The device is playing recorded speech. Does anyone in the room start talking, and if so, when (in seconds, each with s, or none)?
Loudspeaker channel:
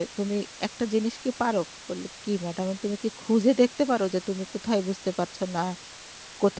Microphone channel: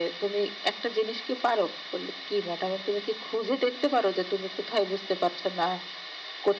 none